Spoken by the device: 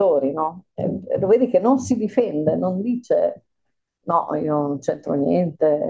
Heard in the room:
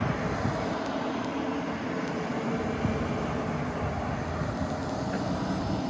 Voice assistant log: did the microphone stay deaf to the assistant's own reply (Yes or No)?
Yes